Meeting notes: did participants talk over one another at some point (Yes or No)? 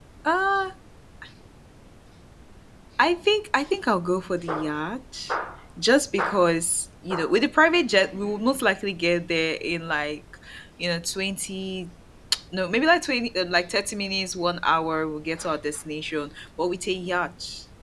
No